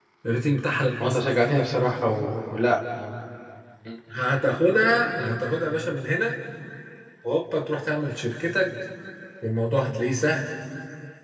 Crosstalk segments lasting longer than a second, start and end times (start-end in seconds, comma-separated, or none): none